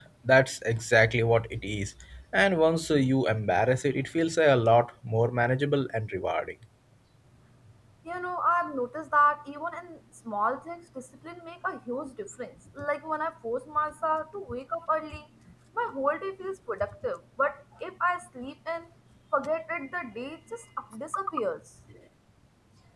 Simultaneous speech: No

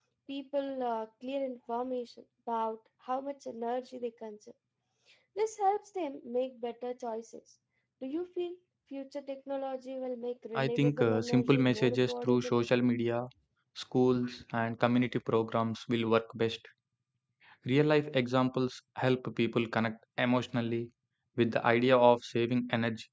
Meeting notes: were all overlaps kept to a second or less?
No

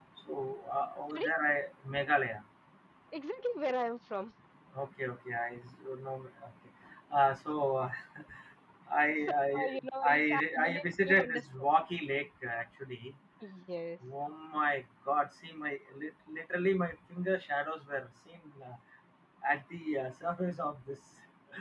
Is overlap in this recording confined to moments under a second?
No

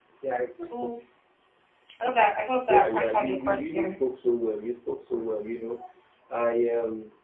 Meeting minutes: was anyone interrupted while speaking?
Yes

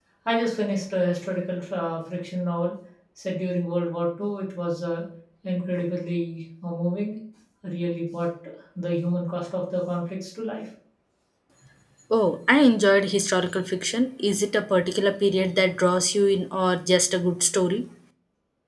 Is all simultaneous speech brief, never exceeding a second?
Yes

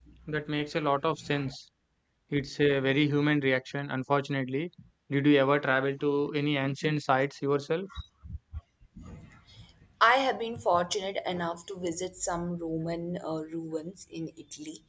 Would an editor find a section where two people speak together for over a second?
No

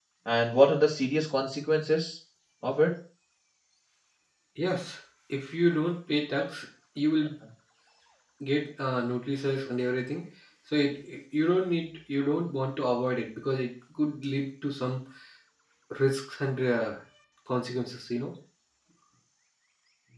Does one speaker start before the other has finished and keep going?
No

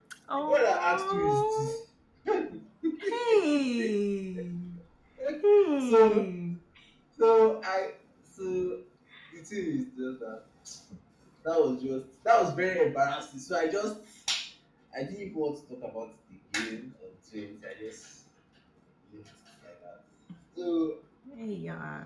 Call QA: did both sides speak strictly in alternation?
No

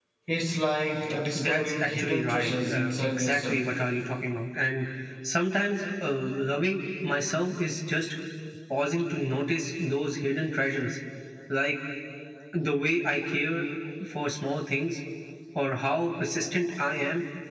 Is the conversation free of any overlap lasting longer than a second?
No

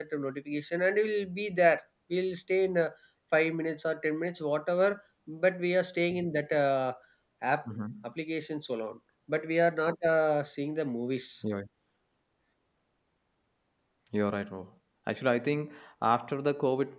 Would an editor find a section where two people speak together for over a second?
No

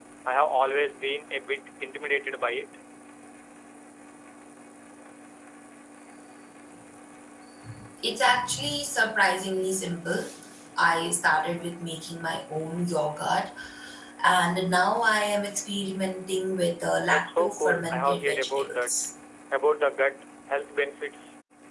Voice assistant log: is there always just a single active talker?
No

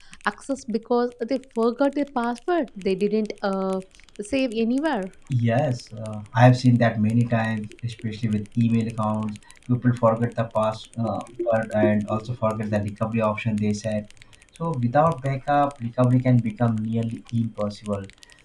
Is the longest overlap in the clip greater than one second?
No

